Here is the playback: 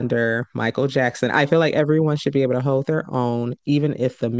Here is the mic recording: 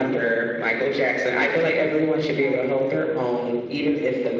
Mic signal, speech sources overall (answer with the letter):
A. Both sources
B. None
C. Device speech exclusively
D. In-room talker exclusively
A